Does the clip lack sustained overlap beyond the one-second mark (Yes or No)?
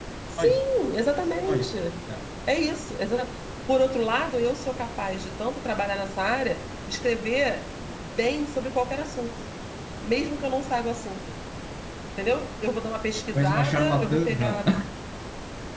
No